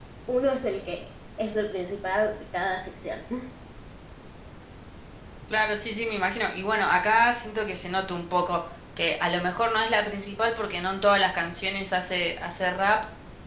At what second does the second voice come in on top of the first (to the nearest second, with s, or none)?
none